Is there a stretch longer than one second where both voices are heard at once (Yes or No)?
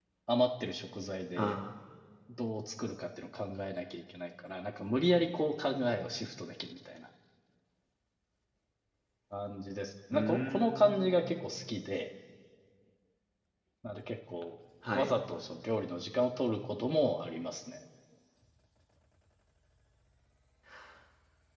Yes